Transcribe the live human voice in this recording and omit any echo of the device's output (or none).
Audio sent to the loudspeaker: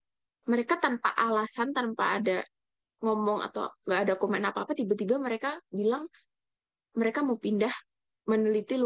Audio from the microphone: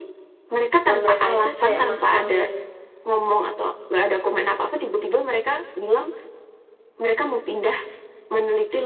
nah mereka itu kayak masangin